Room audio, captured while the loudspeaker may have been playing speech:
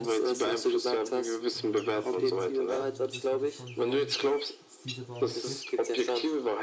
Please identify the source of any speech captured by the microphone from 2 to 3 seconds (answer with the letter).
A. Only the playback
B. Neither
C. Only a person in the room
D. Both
D